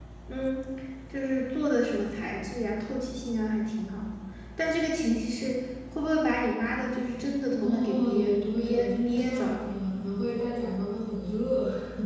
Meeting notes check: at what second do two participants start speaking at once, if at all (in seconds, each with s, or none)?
7.6 s